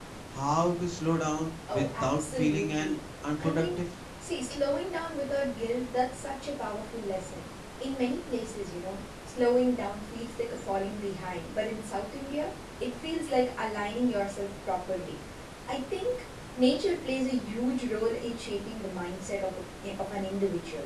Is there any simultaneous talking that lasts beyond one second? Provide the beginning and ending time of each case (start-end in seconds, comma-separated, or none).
1.7-3.0